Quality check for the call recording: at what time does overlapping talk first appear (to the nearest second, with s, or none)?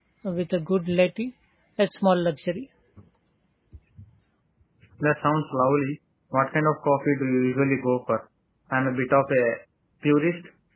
none